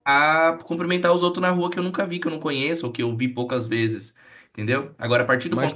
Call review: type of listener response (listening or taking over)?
listening